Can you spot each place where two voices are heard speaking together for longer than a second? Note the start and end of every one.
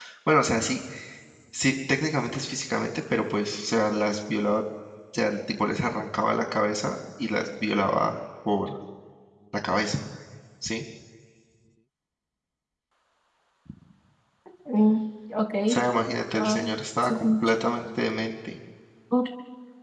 16.3-17.7

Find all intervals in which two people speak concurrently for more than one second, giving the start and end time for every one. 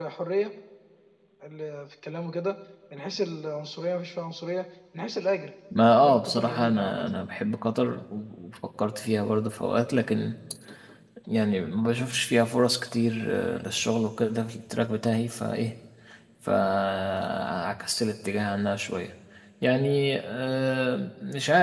5.8-7.0

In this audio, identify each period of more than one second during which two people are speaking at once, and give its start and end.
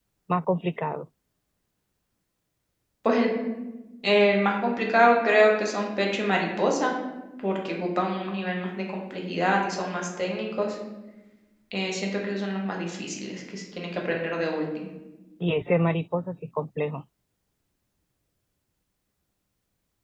none

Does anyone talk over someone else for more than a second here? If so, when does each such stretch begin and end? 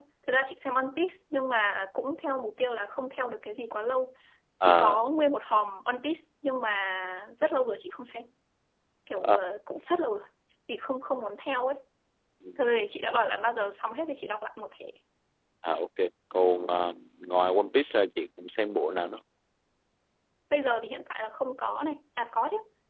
none

